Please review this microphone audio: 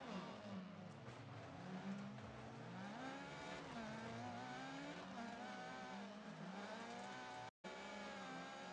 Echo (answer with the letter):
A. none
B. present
A